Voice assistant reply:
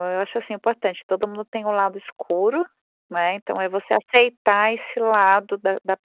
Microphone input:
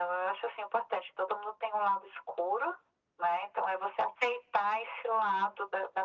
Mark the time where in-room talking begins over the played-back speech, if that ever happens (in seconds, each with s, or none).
none